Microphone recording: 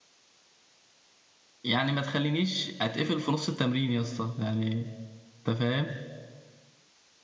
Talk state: user only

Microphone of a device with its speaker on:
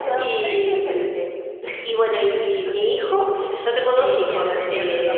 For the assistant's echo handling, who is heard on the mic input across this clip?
both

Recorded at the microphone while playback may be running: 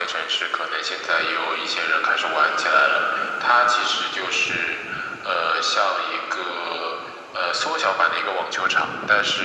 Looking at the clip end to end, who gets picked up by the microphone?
echo only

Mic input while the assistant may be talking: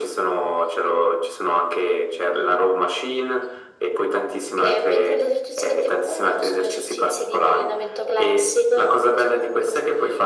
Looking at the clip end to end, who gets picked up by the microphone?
echo only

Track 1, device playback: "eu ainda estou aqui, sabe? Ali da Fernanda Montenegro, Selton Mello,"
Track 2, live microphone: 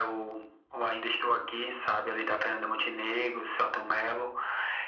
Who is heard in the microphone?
echo only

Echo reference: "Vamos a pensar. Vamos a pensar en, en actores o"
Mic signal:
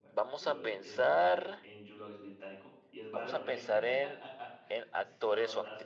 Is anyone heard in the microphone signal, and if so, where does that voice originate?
both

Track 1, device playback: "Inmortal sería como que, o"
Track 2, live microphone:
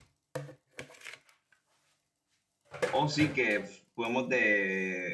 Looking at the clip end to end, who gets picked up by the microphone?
user only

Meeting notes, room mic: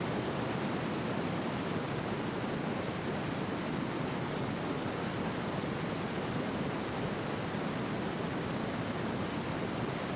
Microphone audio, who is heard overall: neither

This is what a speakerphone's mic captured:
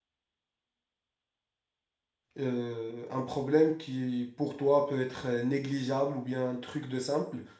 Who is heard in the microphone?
user only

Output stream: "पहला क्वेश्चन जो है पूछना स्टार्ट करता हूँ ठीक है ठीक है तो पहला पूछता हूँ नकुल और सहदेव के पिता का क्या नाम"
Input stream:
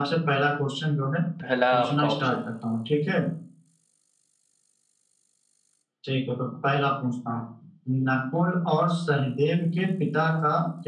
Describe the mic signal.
both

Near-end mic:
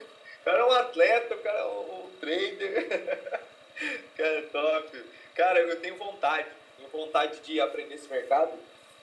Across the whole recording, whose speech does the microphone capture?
echo only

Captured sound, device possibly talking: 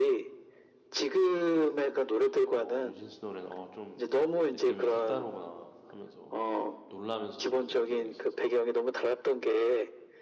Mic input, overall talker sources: both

